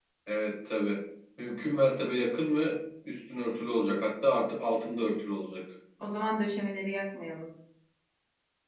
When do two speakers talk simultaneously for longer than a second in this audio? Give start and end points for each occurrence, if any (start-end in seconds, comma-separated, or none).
none